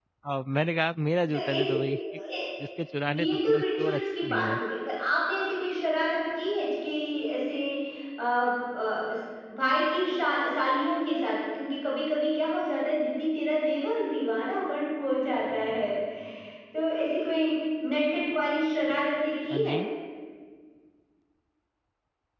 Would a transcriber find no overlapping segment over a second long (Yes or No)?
No